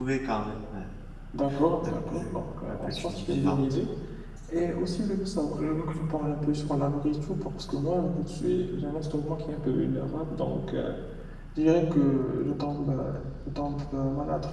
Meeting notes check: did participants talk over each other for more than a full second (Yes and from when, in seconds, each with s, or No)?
Yes, from 1.8 s